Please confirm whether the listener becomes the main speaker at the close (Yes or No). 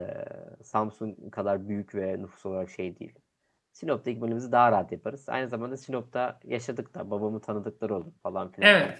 Yes